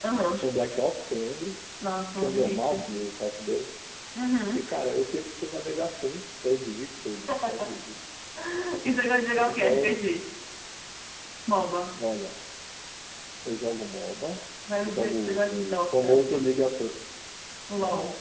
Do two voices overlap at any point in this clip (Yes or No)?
Yes